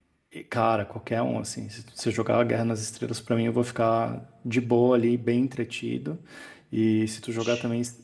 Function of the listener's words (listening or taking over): listening